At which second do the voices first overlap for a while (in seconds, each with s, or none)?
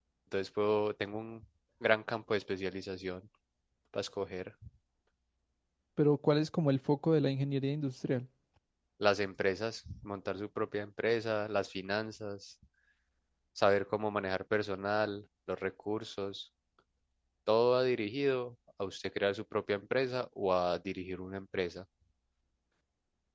none